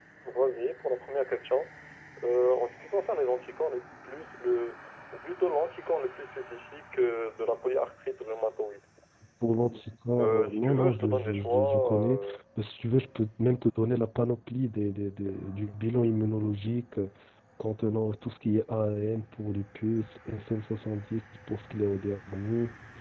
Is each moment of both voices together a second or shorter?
No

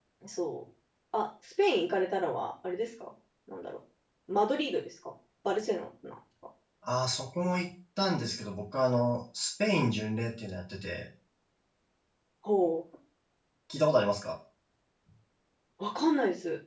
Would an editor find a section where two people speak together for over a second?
No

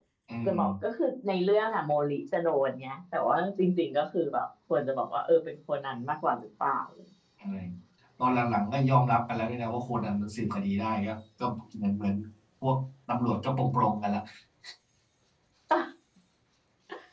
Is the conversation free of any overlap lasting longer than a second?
Yes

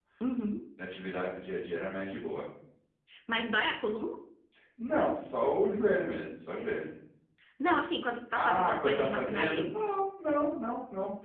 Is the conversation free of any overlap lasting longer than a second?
No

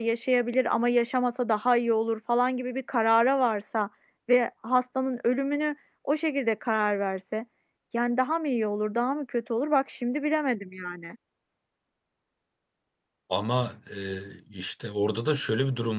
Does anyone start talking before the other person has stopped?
No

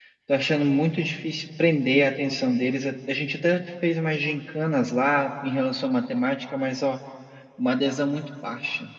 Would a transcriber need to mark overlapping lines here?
No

